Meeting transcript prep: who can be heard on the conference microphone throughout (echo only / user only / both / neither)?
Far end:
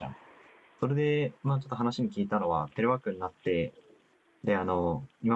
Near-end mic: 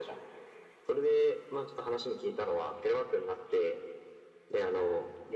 echo only